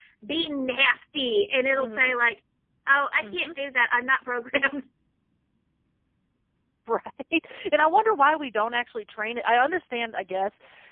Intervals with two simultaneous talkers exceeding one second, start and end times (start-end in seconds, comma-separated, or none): none